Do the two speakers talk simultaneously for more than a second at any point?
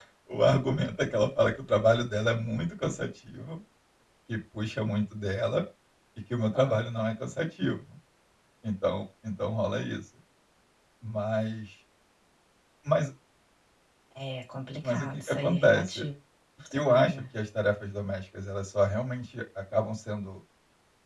Yes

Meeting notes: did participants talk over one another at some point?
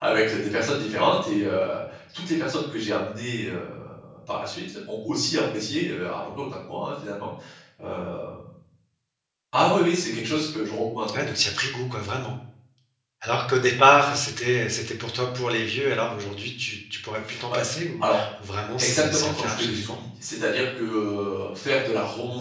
Yes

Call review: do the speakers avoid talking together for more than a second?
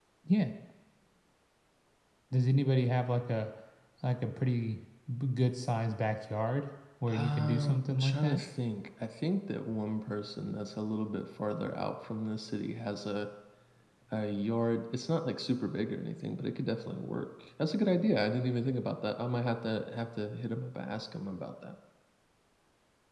No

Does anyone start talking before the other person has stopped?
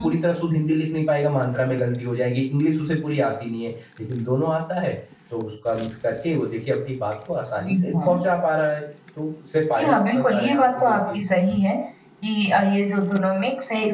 Yes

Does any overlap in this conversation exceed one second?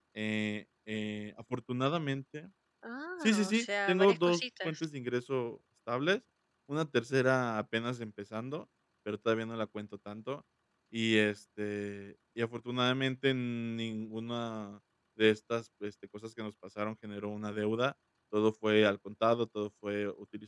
Yes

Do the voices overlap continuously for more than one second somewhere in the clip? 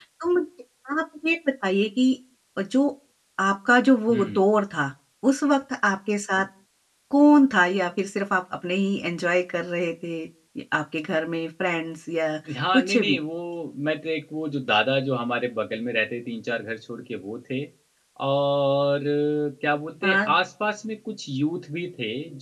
No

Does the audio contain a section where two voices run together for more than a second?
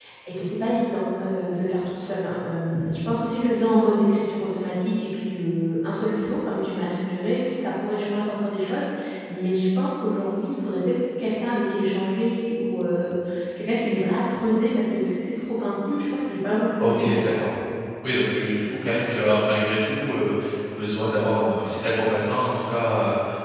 No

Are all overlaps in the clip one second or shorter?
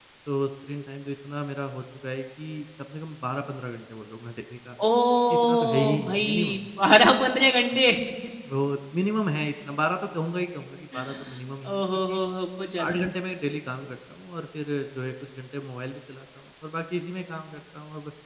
No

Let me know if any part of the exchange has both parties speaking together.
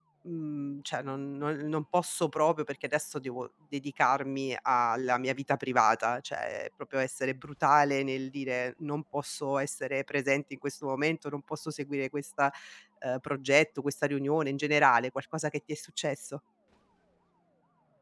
No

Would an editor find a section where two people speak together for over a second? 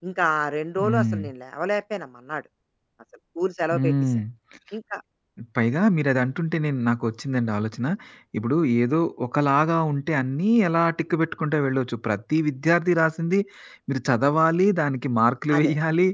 No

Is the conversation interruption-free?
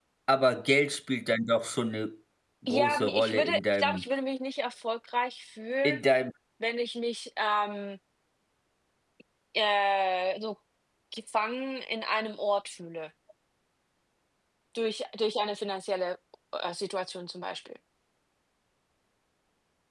No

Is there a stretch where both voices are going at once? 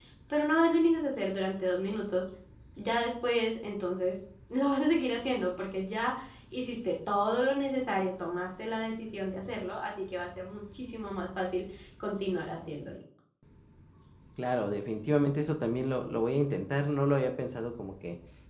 No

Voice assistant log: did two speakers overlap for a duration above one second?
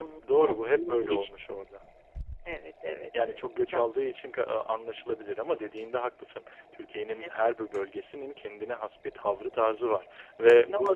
Yes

